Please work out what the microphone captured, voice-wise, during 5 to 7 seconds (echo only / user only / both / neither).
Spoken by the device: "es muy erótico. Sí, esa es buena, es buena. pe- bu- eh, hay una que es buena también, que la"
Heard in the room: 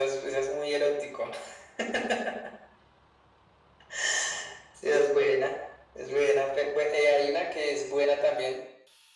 echo only